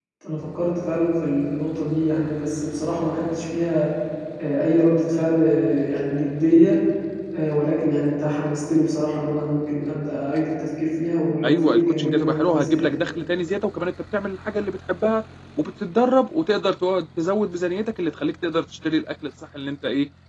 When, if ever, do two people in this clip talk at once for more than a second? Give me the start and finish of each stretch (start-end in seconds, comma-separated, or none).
11.4-12.9